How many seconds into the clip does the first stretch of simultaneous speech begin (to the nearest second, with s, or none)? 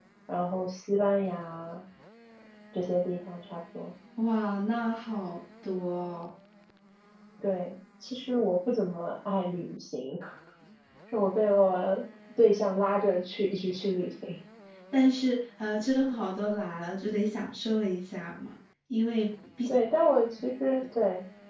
none